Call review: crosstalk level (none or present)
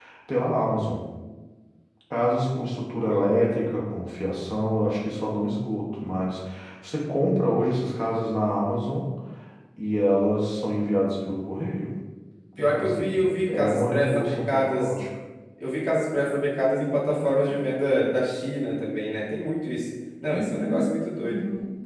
present